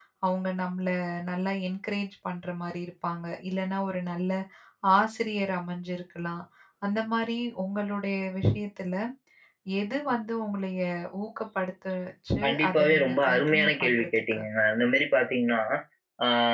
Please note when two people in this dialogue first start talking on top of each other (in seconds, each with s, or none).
12.4 s